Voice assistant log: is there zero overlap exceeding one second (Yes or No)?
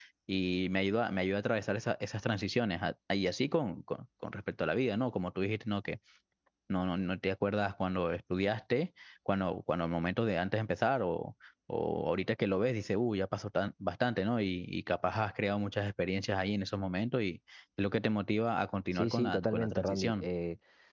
No